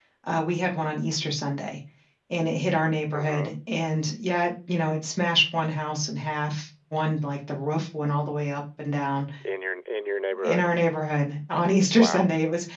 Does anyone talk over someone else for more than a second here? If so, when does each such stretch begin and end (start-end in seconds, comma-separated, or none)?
none